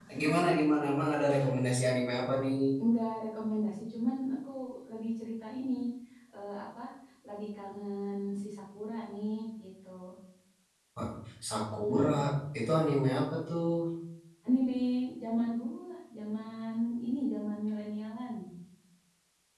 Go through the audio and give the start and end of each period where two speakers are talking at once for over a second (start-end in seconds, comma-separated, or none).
none